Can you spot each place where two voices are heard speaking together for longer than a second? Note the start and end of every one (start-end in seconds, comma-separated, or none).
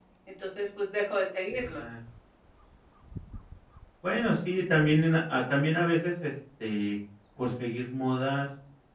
none